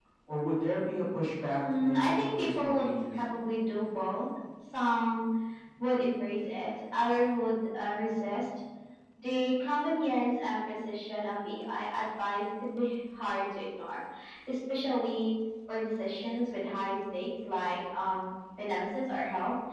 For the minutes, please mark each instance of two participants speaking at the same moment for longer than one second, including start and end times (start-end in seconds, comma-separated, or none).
1.7-3.4